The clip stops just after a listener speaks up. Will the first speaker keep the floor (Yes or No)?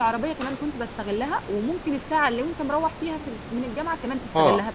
No